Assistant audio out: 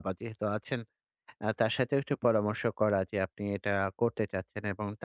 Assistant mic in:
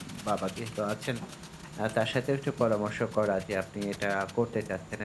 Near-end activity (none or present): none